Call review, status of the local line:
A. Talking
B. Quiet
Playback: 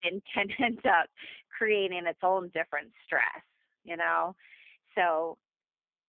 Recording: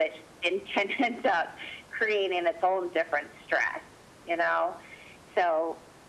B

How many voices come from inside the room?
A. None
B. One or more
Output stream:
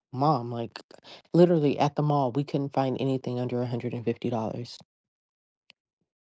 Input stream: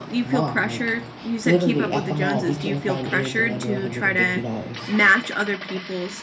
B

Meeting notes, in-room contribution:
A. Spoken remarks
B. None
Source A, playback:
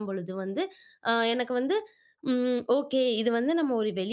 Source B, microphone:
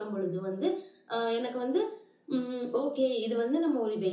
B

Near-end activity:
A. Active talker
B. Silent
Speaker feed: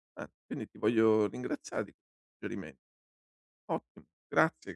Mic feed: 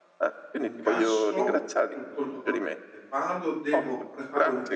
A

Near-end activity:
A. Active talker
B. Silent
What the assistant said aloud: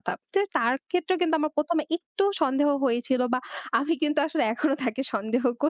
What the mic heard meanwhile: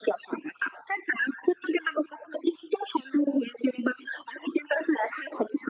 B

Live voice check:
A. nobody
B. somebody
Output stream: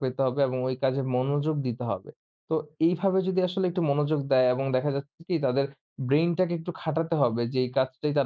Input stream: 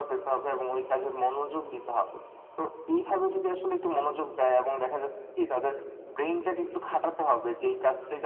A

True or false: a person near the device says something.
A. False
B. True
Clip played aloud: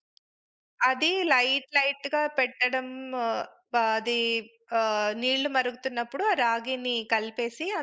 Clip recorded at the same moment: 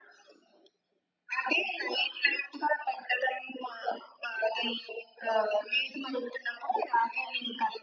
A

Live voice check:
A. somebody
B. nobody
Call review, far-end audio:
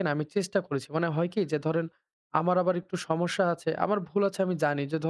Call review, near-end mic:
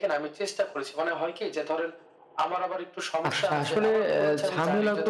A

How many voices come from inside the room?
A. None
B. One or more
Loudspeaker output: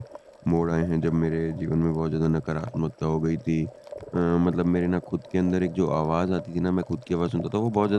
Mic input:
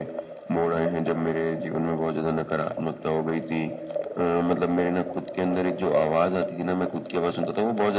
A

